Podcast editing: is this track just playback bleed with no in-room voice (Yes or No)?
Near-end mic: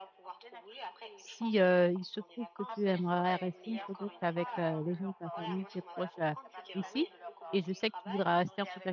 No